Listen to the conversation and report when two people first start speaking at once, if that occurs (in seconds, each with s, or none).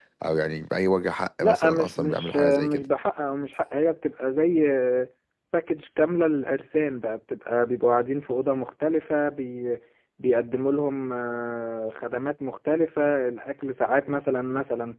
1.4 s